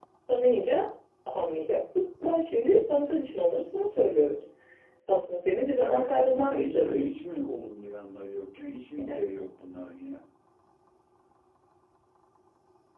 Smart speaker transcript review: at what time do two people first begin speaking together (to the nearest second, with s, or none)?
6 s